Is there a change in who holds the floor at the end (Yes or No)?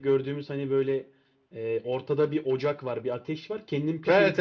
Yes